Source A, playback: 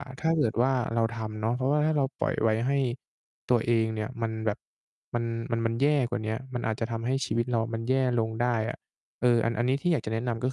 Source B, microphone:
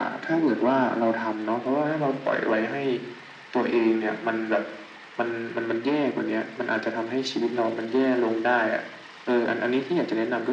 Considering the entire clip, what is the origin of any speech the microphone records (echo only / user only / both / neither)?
echo only